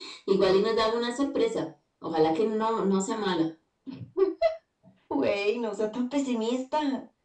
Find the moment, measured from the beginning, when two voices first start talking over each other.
none

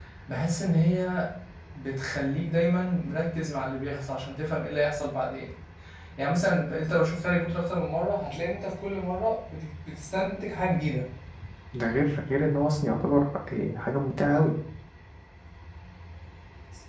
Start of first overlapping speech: none

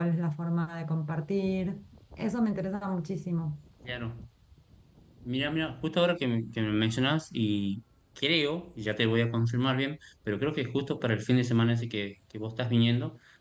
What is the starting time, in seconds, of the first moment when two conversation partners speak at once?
none

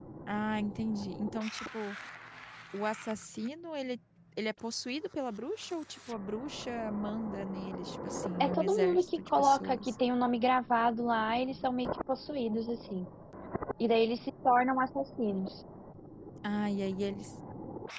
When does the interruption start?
8.4 s

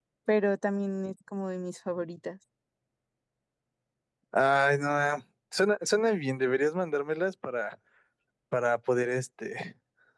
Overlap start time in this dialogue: none

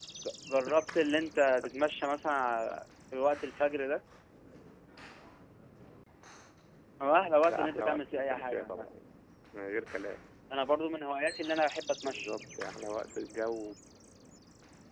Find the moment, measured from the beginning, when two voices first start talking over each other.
7.4 s

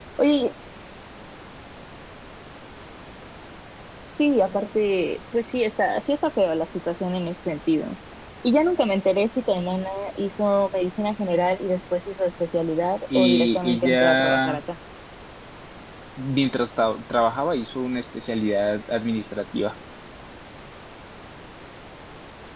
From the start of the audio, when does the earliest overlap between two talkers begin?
13.1 s

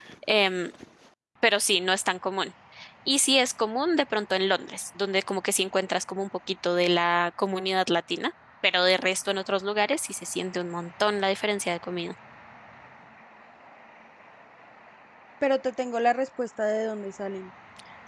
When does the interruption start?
none

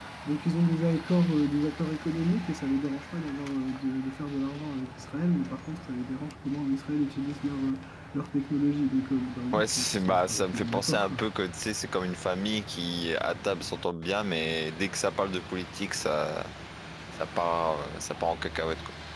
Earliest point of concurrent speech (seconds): 9.5 s

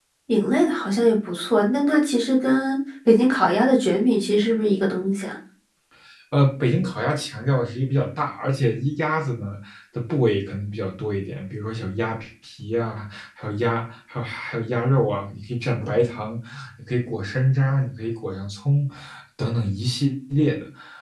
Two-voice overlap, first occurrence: none

